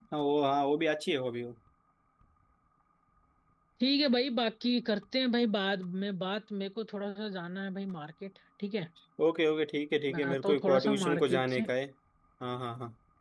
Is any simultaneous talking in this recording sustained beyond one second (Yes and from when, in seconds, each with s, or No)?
Yes, from 10.1 s